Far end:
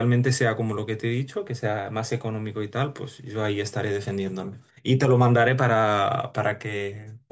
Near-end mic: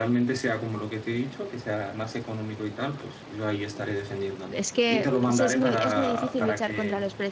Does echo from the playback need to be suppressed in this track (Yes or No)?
Yes